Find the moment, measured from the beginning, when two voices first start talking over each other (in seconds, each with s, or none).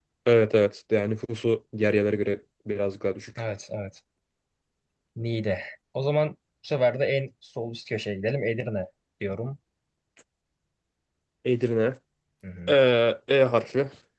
none